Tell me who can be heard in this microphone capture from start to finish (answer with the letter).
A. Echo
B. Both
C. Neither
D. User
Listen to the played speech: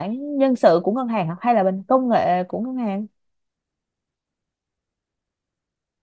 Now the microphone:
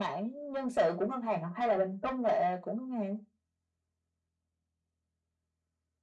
A